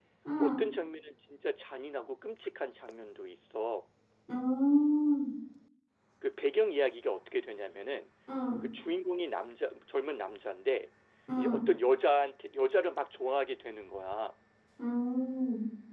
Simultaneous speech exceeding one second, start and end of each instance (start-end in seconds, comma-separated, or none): none